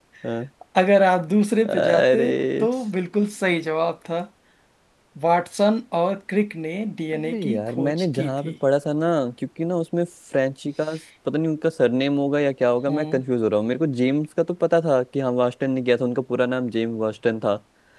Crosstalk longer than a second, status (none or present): present